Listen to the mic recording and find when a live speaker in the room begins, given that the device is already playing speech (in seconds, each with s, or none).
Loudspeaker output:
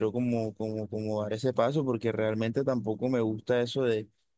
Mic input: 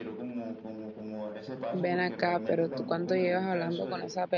1.7 s